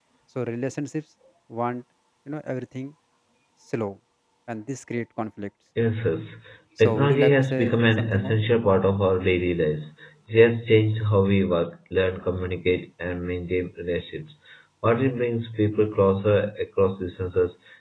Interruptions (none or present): present